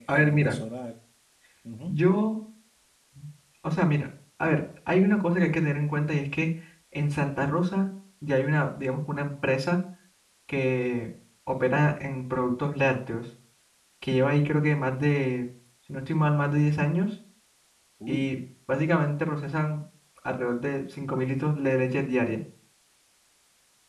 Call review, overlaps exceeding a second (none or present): none